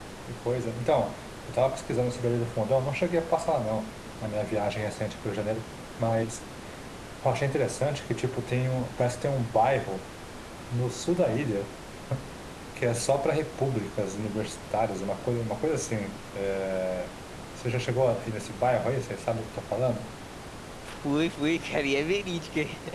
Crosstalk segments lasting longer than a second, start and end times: none

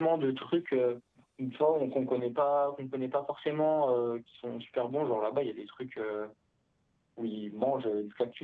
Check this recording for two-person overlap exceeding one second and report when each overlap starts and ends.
none

